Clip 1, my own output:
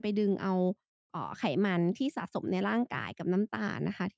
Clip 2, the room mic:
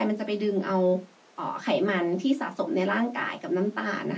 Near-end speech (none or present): none